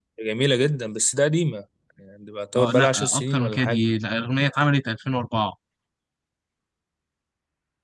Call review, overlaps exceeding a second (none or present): present